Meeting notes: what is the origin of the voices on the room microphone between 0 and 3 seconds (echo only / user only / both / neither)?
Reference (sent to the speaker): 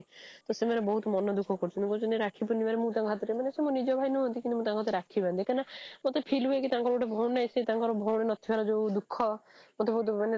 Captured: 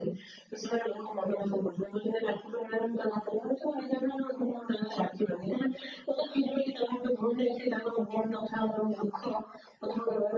echo only